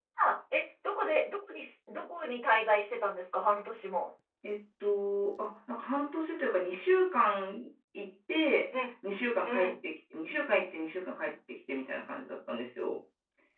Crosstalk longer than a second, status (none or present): none